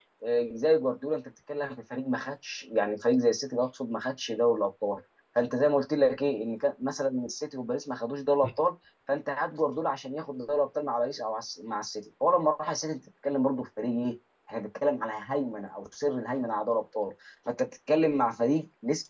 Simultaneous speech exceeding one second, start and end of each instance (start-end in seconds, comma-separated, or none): none